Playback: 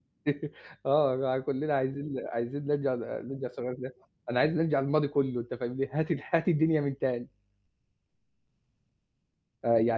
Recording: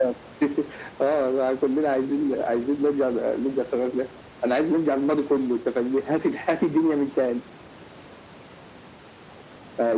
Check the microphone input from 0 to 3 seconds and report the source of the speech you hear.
echo only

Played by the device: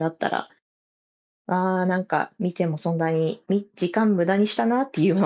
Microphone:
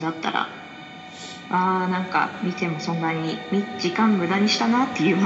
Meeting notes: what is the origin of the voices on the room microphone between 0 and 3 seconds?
echo only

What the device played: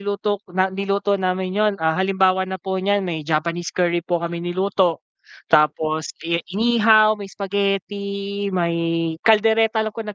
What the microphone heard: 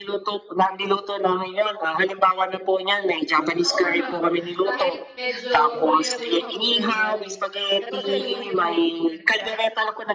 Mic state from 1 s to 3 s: echo only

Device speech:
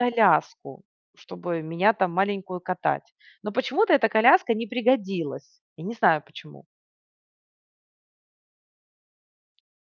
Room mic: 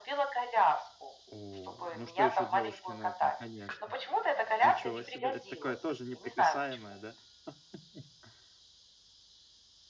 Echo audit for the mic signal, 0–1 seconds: echo only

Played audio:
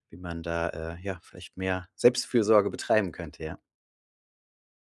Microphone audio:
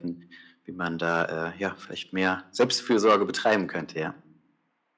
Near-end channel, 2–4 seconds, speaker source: echo only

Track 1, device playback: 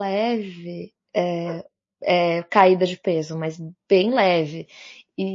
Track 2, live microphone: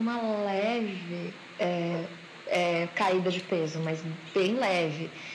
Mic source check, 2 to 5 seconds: echo only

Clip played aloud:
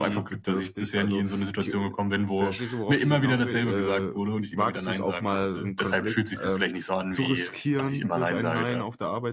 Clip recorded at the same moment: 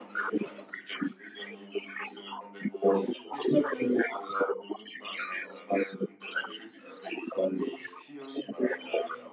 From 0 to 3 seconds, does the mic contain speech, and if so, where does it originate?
echo only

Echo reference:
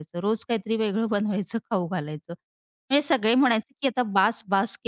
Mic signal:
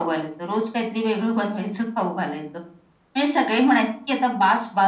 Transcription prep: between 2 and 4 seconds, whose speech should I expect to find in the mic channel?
echo only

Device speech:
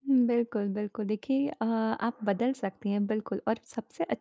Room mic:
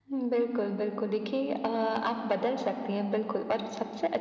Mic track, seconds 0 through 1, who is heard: echo only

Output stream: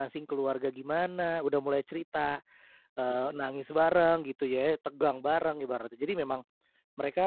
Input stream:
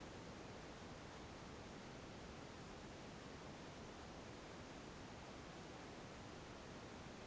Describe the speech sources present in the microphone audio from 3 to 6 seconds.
neither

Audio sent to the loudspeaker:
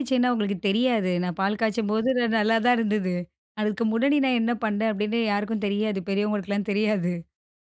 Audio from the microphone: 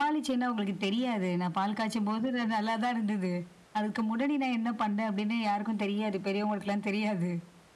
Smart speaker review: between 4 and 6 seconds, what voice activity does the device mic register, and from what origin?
echo only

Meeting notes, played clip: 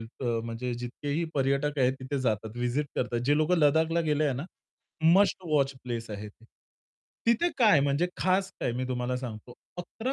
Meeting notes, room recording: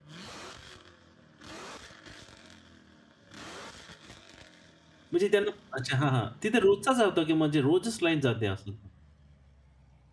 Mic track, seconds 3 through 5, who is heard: neither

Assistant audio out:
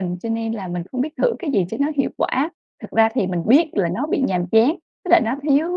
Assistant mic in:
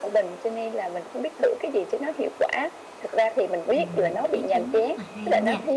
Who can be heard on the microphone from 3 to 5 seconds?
both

